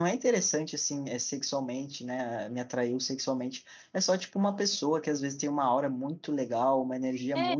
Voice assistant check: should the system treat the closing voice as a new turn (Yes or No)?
No